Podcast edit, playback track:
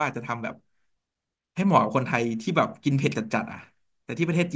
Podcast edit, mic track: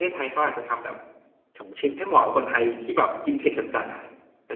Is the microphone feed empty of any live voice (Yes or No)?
No